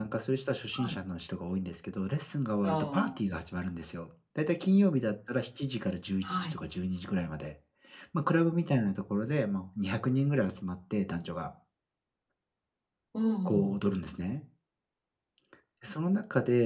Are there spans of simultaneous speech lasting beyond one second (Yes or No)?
No